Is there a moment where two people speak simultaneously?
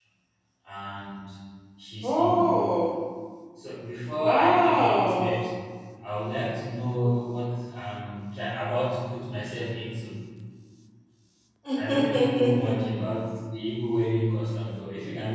Yes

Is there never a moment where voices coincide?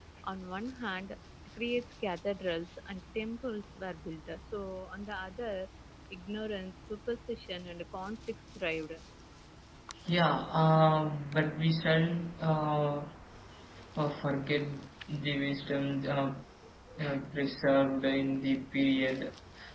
Yes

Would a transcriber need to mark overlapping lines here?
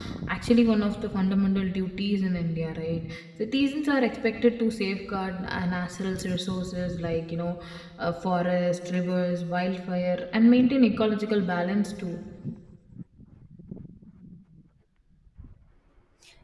No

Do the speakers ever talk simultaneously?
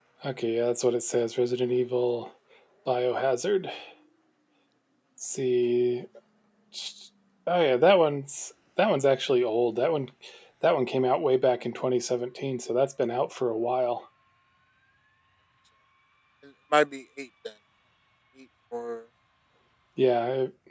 No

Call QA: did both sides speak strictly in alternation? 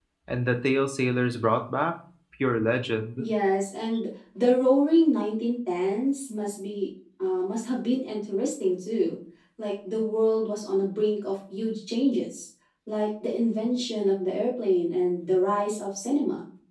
Yes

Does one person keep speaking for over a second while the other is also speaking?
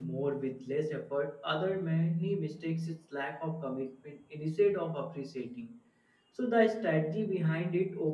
No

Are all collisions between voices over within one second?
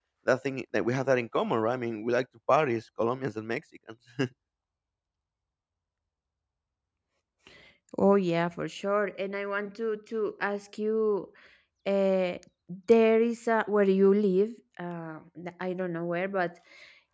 Yes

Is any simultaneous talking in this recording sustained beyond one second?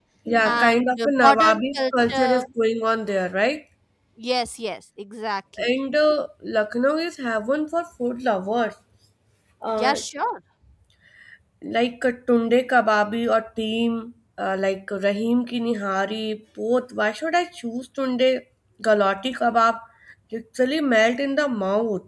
Yes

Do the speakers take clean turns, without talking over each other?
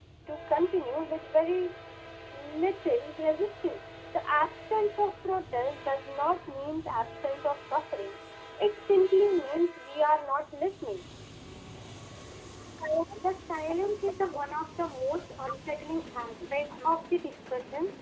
Yes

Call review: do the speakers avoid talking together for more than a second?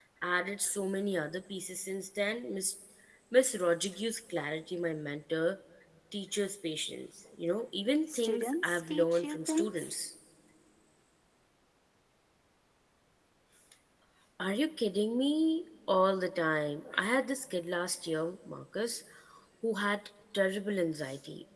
No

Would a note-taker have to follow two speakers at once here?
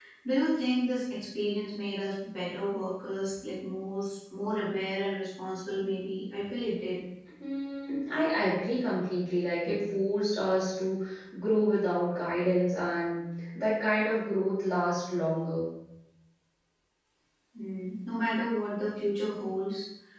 No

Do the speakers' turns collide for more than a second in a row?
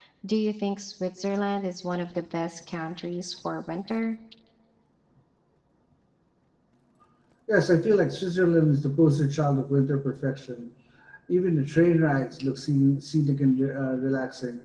No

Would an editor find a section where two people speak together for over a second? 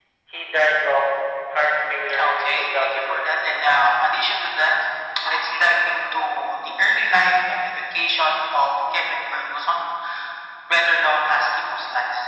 Yes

